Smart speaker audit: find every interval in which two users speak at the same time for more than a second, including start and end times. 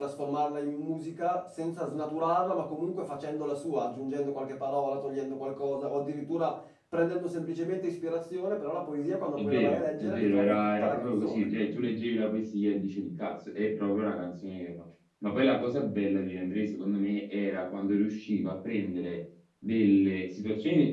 9.3-11.5

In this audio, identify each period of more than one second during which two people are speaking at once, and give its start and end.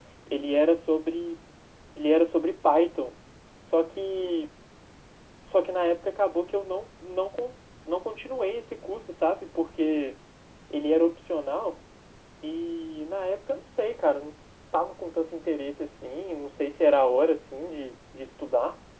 none

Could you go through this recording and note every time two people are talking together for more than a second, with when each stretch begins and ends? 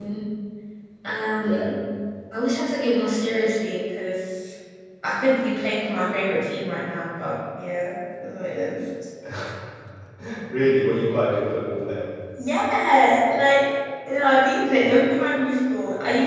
none

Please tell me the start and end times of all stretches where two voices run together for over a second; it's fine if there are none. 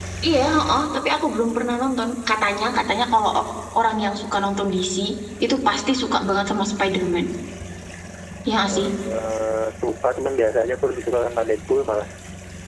none

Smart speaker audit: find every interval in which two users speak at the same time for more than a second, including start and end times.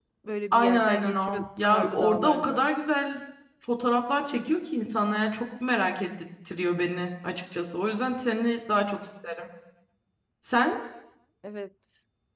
0.5-2.6

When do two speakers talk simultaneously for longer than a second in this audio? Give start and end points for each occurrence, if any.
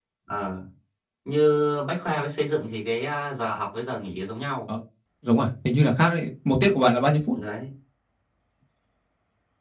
none

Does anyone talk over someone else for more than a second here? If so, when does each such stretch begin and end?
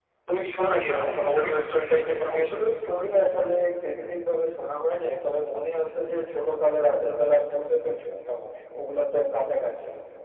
none

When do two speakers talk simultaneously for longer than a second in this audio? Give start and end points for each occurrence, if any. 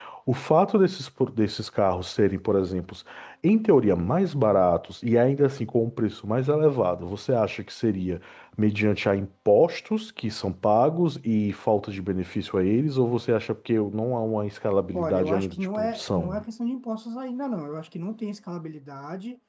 14.9-16.4

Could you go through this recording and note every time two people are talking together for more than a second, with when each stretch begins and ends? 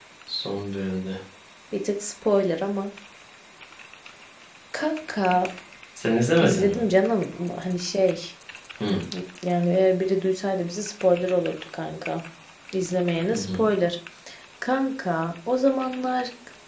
none

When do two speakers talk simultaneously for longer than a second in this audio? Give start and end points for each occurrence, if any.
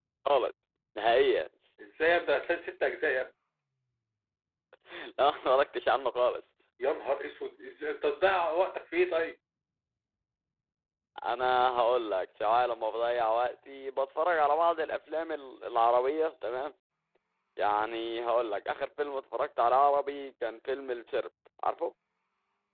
none

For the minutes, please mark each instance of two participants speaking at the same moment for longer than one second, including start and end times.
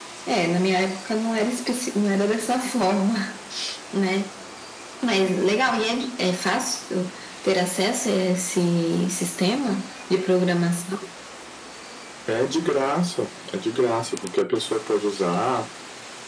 none

